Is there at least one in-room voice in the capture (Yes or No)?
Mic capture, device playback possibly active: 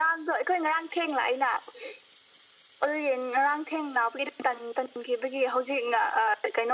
No